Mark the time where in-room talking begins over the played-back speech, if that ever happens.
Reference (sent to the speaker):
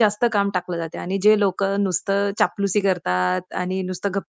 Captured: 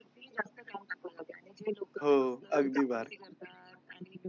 2.0 s

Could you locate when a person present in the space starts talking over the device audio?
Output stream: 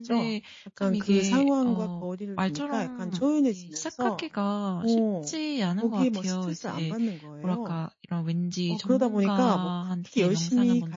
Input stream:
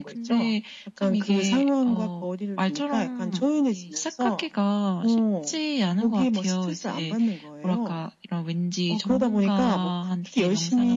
none

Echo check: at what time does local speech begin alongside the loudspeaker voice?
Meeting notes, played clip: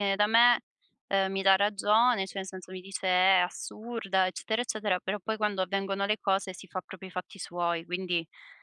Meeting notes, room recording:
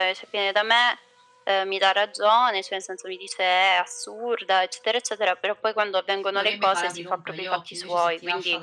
6.3 s

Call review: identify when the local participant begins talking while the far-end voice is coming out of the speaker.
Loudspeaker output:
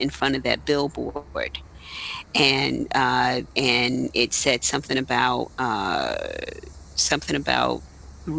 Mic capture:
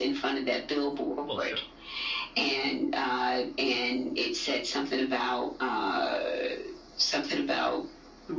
1.2 s

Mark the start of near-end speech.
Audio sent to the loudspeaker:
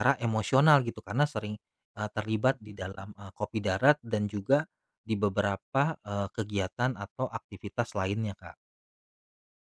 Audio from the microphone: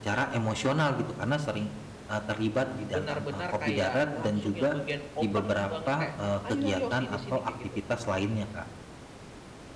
2.9 s

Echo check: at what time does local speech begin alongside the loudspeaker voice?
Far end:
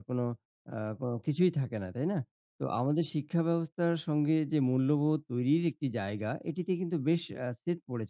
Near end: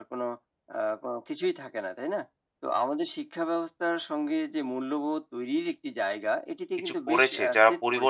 6.8 s

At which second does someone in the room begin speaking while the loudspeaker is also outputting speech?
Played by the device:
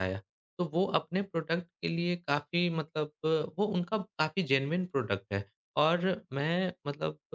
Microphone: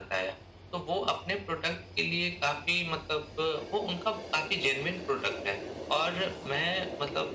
none

